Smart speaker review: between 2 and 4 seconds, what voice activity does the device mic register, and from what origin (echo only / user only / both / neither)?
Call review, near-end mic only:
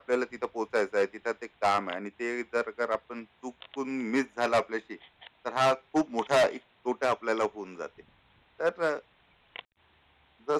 echo only